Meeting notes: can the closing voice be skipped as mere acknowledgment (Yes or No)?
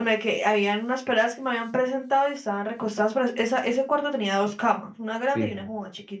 Yes